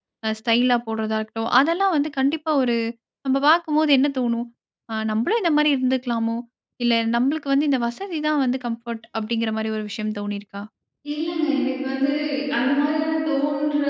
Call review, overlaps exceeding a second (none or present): none